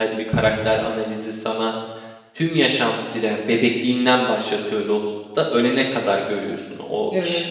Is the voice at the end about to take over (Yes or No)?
No